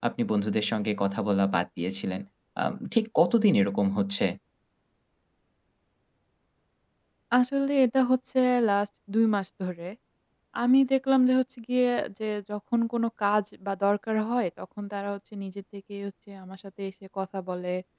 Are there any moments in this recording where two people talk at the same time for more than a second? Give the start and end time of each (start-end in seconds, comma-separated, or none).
none